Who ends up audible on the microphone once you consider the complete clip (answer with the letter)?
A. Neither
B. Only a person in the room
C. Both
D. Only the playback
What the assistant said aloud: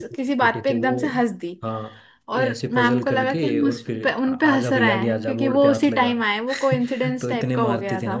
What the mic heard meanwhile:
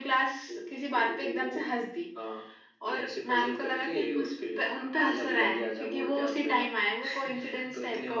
D